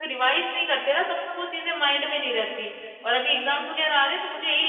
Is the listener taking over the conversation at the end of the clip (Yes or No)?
No